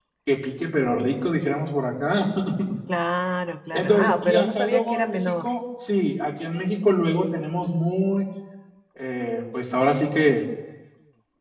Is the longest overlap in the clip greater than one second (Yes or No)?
Yes